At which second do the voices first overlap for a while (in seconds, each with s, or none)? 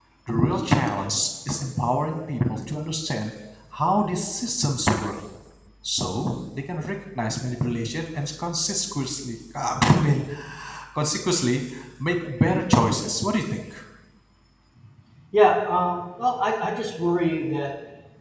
none